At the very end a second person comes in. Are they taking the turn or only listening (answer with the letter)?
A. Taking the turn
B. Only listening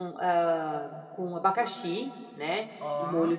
B